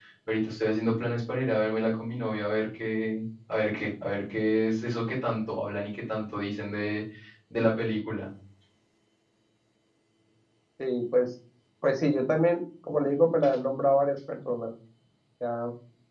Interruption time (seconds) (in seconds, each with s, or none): none